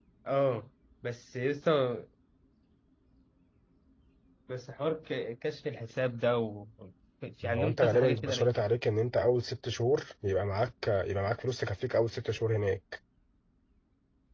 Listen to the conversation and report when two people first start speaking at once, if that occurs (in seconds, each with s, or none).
7.4 s